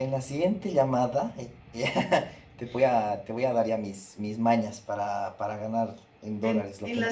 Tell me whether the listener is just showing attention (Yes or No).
No